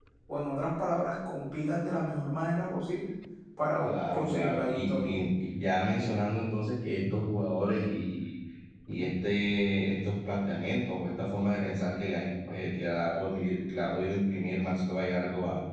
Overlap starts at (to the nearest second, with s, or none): 4 s